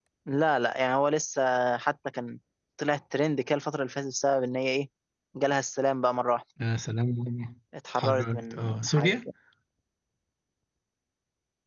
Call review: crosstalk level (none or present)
present